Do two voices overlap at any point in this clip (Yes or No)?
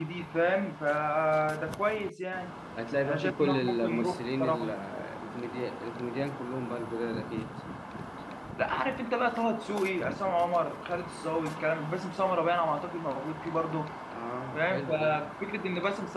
Yes